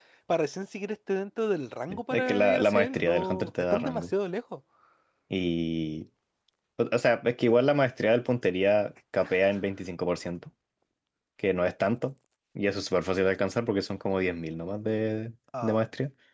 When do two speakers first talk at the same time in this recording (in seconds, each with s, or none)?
1.9 s